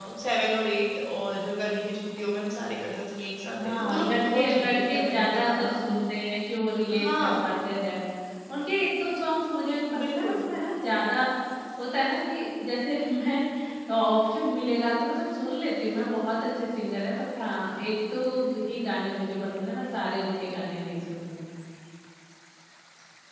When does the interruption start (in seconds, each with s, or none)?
3.5 s